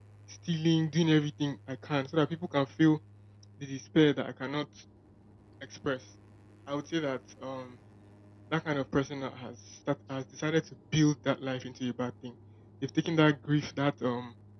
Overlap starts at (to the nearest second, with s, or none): none